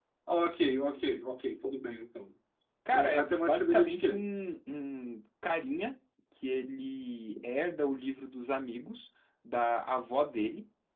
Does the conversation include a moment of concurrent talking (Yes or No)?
Yes